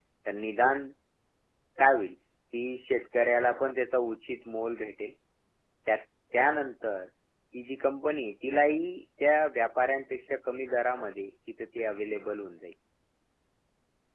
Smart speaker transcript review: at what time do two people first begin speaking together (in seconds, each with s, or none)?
none